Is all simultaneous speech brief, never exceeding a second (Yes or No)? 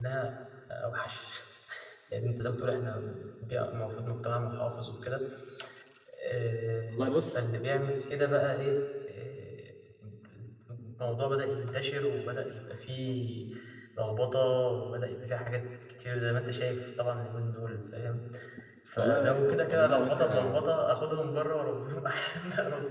No